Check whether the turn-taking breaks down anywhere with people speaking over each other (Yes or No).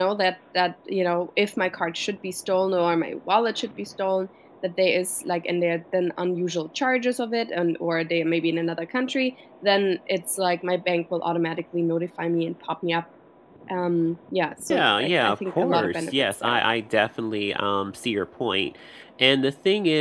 Yes